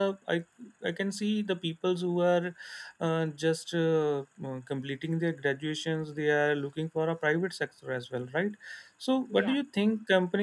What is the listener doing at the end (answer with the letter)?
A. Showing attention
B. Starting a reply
A